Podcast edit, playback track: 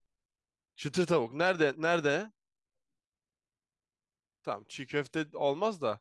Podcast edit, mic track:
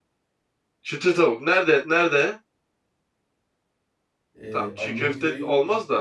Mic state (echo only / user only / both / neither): both